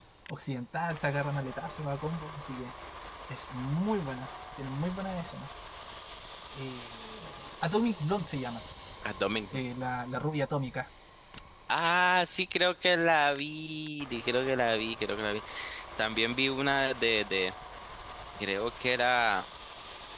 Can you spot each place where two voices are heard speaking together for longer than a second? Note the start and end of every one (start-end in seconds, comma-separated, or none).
none